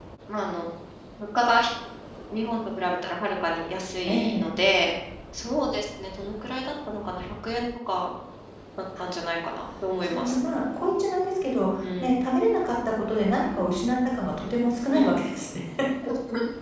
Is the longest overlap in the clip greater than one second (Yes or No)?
No